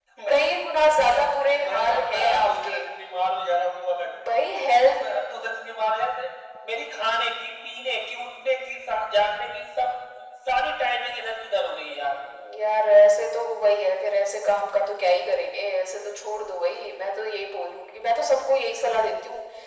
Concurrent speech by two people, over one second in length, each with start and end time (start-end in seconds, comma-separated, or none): 1.5-2.8